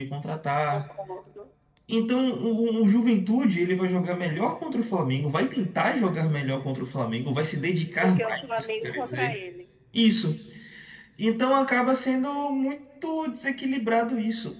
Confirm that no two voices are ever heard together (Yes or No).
No